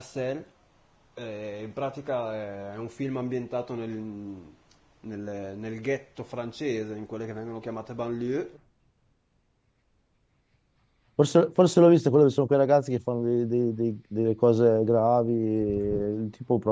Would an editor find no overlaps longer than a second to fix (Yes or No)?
Yes